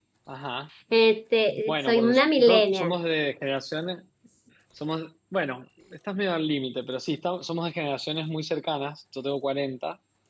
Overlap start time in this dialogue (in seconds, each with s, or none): 1.7 s